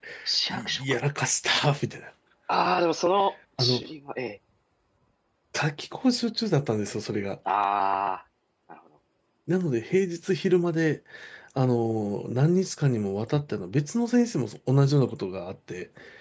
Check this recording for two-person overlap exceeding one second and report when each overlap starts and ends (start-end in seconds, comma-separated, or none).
none